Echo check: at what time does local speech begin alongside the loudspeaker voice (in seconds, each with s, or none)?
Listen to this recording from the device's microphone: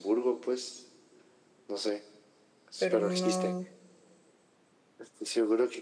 2.8 s